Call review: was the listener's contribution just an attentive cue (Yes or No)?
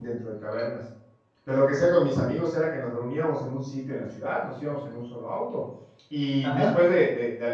Yes